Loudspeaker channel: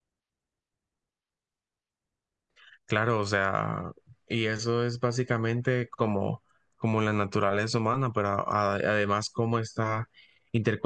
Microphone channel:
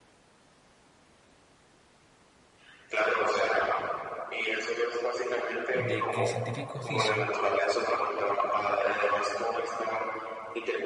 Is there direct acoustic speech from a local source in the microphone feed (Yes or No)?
Yes